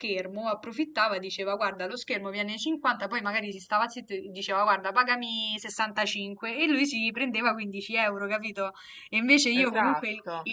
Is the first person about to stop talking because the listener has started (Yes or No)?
No